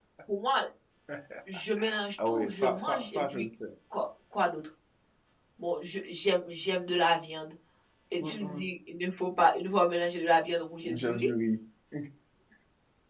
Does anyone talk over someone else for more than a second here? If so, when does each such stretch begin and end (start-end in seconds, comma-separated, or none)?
2.2-3.5